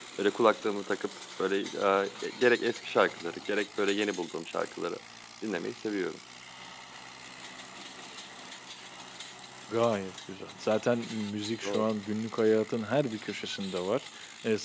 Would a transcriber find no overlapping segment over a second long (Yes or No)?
Yes